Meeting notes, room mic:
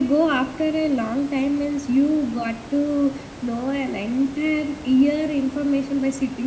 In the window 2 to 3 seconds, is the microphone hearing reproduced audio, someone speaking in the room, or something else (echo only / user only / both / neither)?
echo only